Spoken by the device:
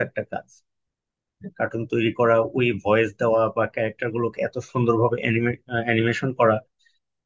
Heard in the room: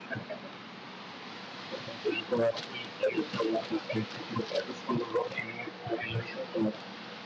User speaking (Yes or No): No